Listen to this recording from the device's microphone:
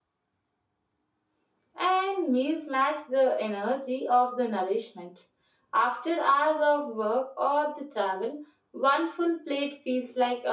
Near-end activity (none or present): none